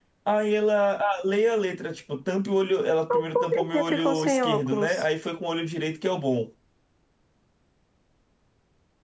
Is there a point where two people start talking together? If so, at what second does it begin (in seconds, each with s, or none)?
3.1 s